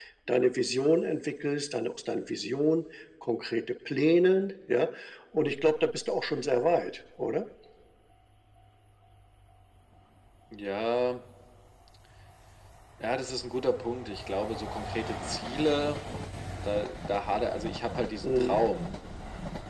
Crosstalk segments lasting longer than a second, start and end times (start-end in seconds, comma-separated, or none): none